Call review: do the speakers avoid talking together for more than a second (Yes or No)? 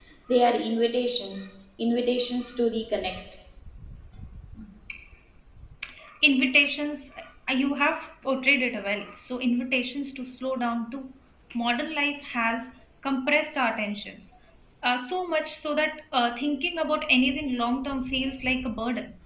Yes